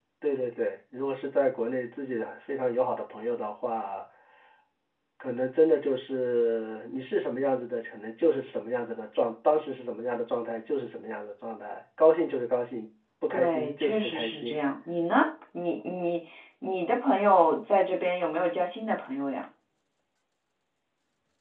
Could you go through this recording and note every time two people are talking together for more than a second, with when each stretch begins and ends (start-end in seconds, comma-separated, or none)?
13.3-14.6